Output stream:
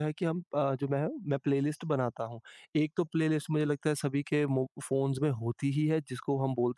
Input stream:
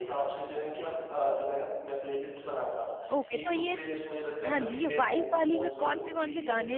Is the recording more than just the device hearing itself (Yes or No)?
Yes